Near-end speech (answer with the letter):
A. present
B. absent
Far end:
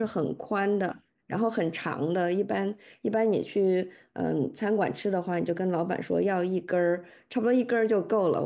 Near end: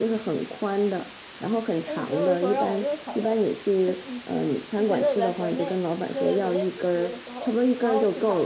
A